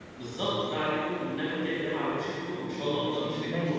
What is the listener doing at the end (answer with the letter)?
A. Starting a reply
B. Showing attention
A